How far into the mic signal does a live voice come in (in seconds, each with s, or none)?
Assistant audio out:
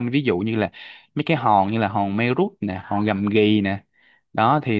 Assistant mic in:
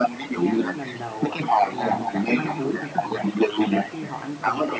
0.3 s